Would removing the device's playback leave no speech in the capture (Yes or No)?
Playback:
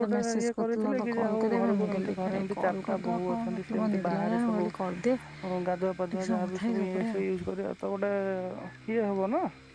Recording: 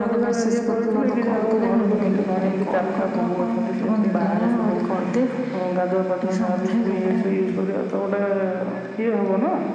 Yes